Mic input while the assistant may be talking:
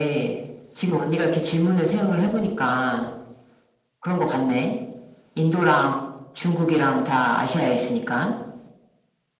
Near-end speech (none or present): none